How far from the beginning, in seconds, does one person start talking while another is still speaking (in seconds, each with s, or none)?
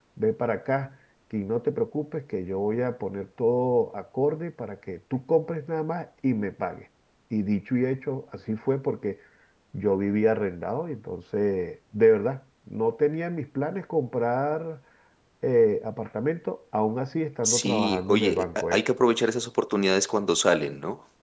17.4 s